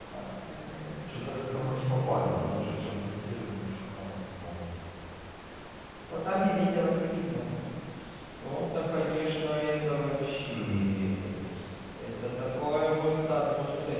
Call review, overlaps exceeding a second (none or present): present